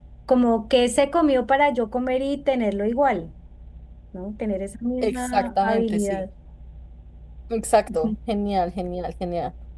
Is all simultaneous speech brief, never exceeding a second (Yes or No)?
No